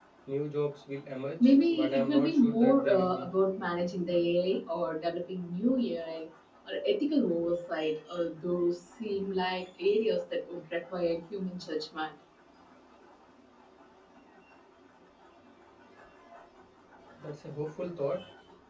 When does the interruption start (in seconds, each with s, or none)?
1.4 s